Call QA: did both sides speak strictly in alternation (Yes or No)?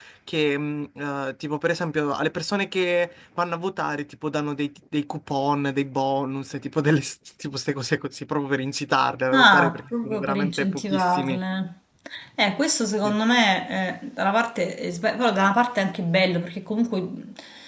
No